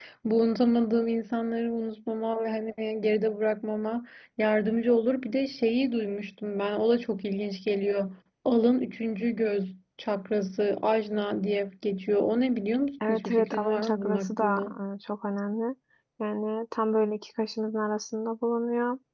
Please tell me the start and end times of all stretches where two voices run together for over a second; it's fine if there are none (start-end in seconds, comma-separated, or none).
13.1-14.6